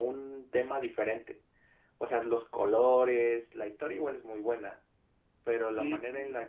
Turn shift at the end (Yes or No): No